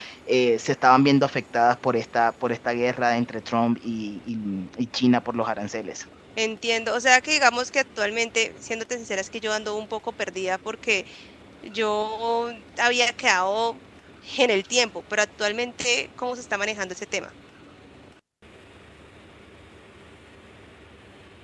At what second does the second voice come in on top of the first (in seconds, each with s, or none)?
none